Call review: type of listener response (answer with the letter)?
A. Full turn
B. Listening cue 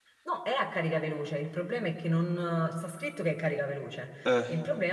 B